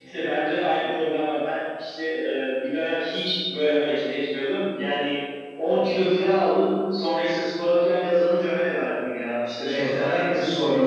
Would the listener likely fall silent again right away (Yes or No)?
No